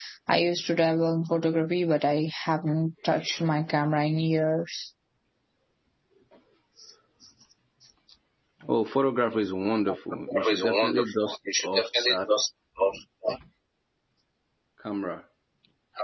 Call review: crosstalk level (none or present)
present